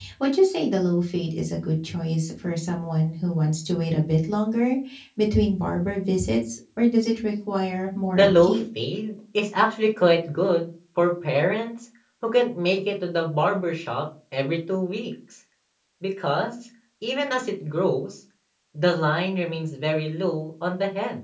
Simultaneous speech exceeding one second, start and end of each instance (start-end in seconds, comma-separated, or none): none